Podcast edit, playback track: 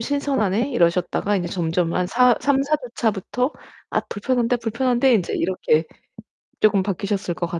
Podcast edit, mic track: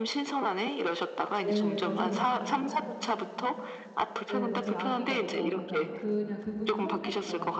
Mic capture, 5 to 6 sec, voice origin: both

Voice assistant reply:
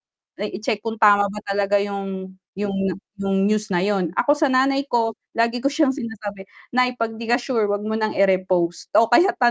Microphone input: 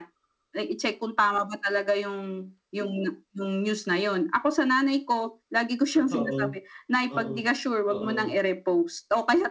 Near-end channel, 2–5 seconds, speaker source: echo only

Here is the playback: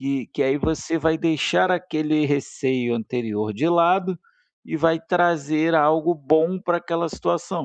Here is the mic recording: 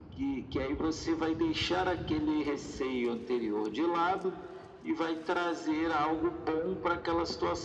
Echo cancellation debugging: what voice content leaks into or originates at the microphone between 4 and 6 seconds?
echo only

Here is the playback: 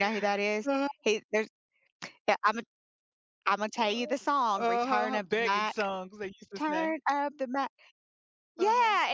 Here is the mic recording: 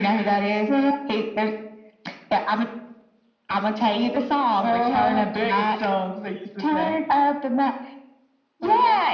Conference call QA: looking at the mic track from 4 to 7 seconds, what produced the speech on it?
echo only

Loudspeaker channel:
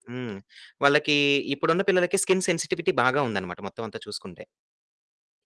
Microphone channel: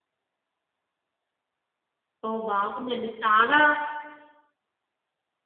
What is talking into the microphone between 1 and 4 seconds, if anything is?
user only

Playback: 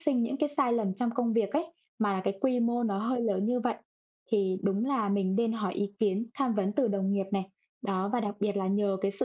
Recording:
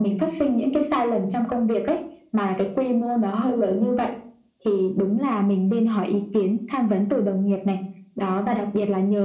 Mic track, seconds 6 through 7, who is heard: echo only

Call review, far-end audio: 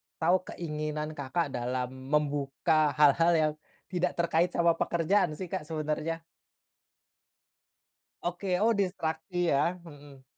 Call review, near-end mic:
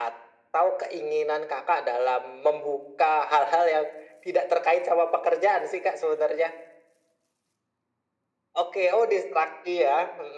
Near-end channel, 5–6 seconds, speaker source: echo only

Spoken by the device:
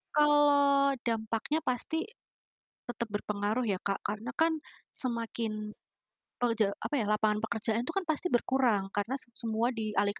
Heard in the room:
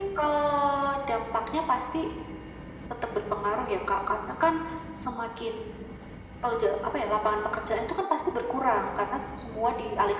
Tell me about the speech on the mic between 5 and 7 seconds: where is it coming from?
echo only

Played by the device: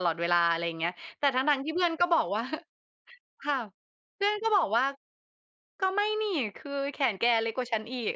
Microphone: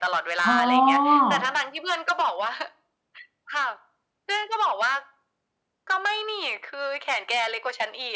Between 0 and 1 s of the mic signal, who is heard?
both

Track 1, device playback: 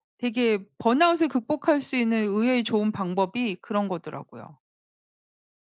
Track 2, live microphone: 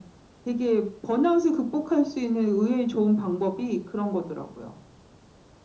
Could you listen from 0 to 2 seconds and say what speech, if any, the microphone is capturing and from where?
echo only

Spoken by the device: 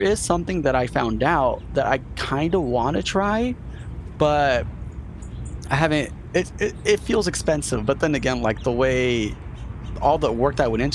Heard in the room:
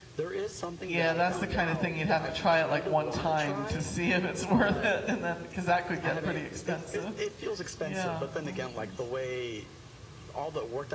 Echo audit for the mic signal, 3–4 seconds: both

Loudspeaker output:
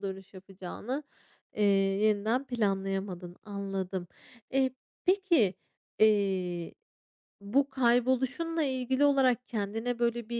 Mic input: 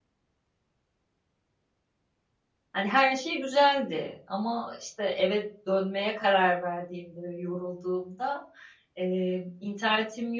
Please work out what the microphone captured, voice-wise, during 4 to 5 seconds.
user only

